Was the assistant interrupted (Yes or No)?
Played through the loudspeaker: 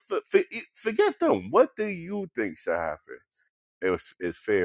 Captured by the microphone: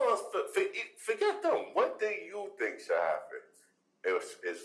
No